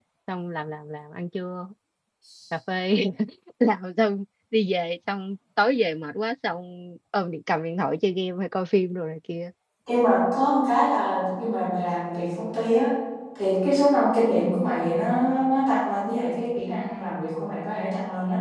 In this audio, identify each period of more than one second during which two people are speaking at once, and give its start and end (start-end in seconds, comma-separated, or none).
none